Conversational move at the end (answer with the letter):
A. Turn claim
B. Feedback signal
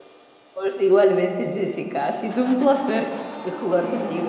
B